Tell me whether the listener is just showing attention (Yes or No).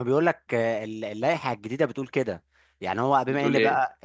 Yes